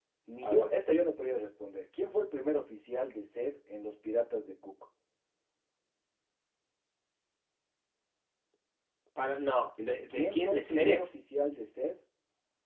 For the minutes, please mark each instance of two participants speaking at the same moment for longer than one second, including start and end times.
9.8-11.1

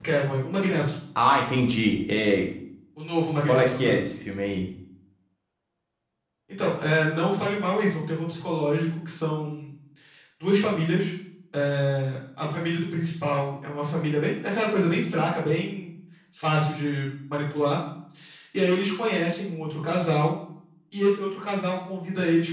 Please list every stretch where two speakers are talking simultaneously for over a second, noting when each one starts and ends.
none

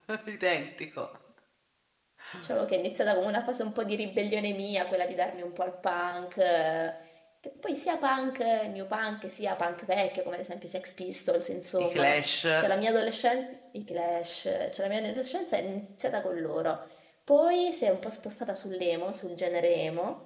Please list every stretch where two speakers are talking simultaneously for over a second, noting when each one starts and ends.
none

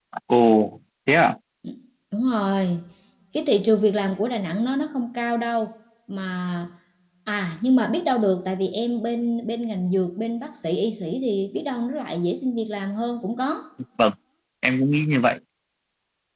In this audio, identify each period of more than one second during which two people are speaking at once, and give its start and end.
none

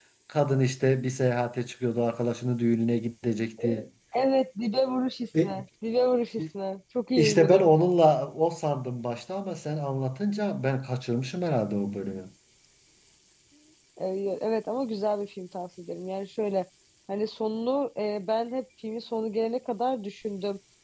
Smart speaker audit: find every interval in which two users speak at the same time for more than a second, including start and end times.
none

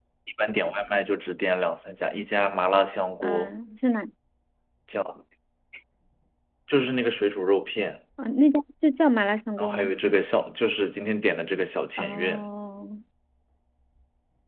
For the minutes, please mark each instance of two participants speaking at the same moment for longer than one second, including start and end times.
none

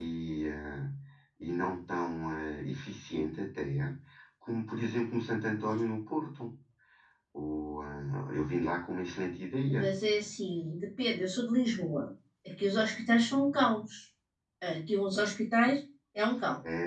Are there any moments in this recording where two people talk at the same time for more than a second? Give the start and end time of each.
none

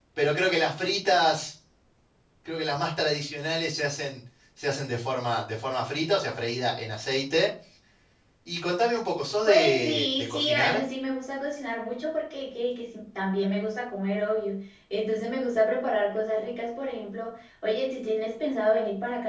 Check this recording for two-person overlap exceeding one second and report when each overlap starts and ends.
9.4-10.8

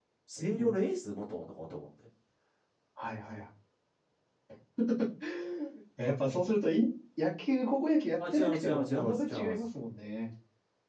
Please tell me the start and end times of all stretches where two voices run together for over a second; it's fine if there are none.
8.3-9.6

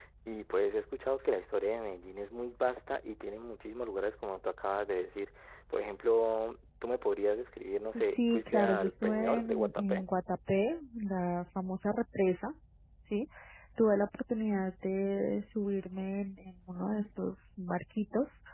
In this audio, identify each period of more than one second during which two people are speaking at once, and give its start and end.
8.0-10.0

